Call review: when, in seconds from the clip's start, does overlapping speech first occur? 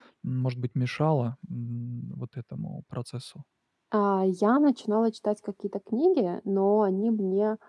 none

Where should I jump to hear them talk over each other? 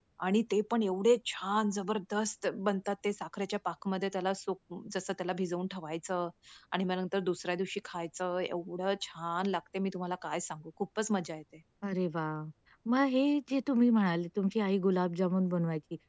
none

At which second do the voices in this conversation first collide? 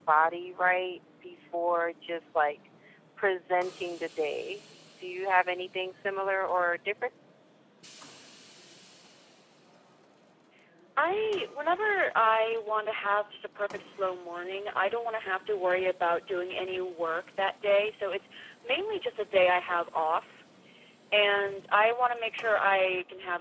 none

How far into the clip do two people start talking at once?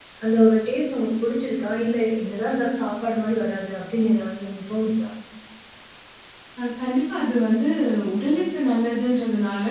none

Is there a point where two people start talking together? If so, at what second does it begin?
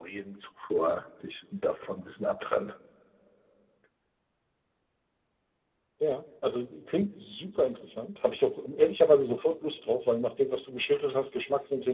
none

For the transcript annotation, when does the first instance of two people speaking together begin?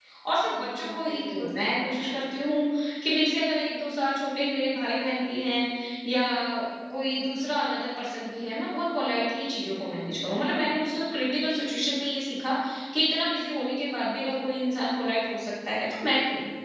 0.6 s

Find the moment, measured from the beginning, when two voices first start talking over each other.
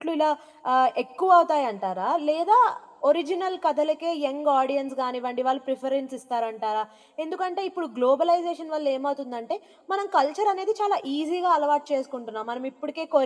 none

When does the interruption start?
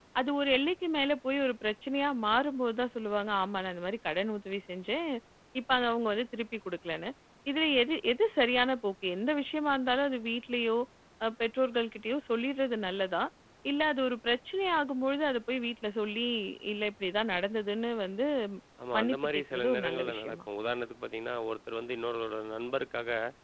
19.0 s

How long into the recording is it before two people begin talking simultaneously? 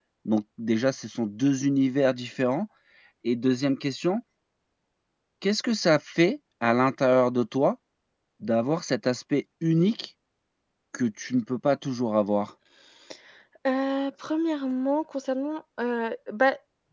none

